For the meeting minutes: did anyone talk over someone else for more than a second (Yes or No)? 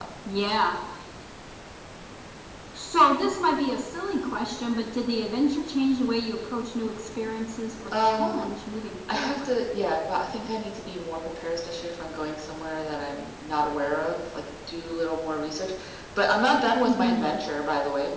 No